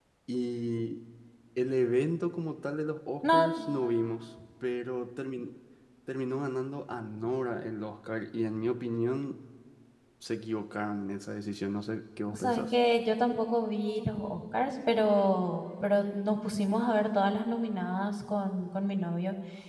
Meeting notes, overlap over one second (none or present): none